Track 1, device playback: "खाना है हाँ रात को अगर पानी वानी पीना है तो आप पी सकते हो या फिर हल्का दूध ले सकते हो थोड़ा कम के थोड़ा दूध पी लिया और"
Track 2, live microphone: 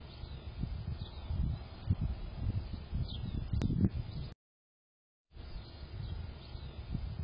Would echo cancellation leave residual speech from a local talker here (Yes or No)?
No